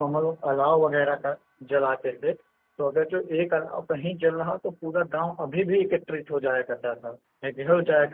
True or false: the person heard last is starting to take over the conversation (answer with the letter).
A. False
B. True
A